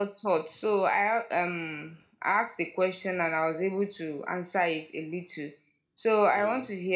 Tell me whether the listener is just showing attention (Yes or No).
Yes